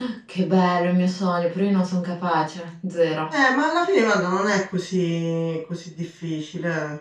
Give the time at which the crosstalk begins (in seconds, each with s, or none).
none